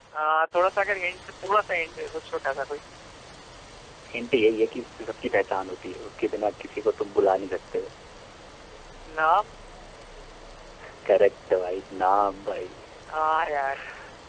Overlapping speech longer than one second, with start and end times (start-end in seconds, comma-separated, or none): none